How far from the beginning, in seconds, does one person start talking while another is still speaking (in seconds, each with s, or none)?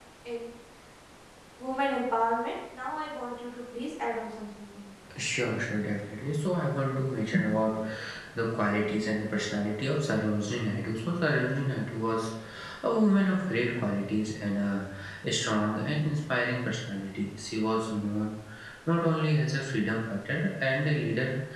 none